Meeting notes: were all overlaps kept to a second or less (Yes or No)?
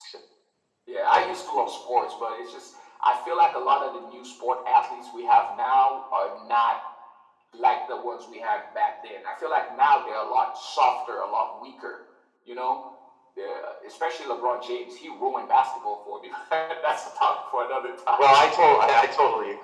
Yes